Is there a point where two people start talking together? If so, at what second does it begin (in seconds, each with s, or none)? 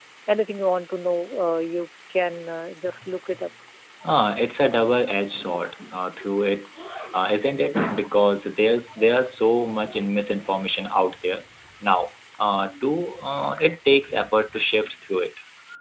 none